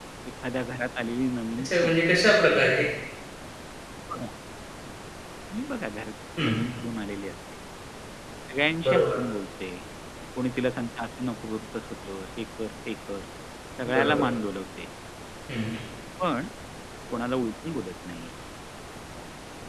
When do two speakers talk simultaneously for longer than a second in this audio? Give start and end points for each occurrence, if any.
none

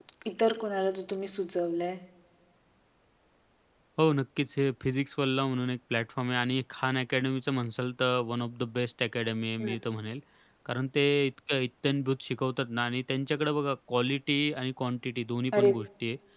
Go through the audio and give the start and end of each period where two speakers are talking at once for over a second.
none

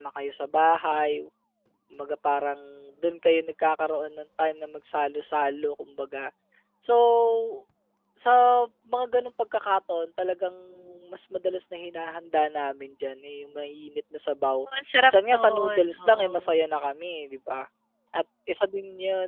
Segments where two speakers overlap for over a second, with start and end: 15.0-16.3

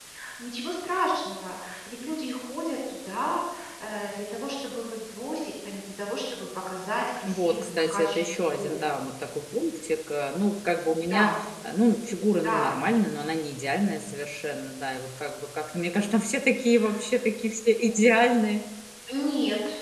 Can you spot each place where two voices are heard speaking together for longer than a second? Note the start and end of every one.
7.2-8.7

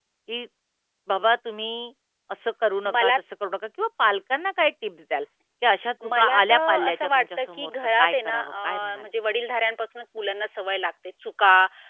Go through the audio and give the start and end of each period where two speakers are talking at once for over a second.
6.1-9.1

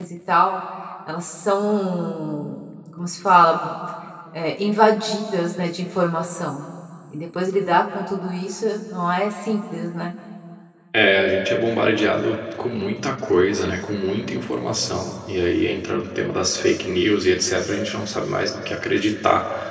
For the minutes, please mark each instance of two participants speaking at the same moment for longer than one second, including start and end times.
none

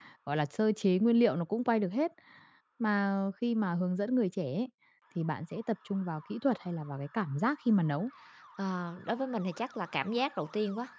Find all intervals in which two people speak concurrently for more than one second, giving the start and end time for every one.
none

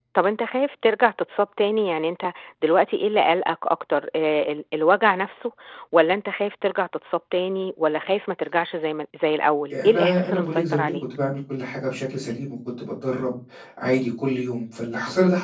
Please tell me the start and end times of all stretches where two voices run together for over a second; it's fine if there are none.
9.7-11.0

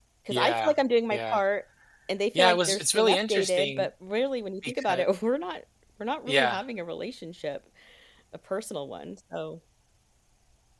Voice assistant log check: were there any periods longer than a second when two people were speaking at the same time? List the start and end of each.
2.4-3.9

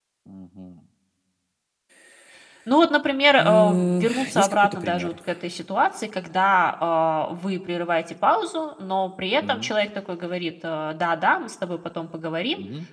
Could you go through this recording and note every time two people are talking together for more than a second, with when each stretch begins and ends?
3.4-5.1

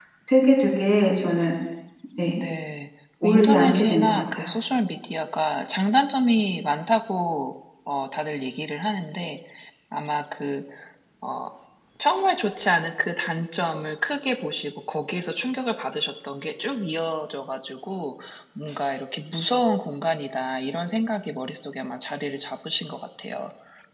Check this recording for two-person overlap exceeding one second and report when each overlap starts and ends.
3.2-4.5

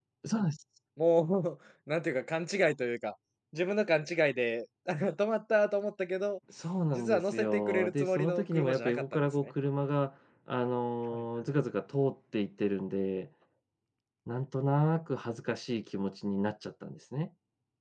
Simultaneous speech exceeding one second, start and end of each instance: 6.9-9.5

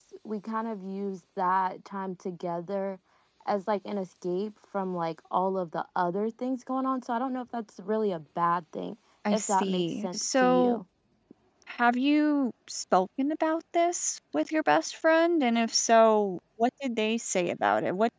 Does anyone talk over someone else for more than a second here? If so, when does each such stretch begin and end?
9.3-10.8

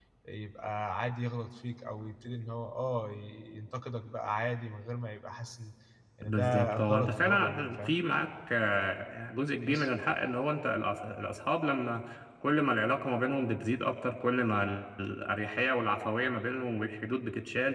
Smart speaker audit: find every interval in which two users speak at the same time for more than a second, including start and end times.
6.3-8.0

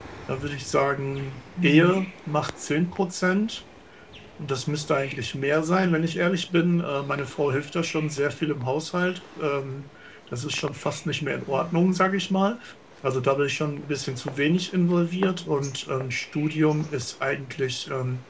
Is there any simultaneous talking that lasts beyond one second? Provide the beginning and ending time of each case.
none

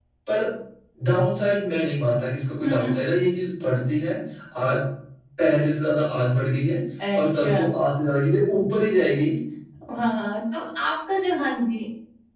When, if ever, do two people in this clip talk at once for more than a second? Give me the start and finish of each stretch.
none

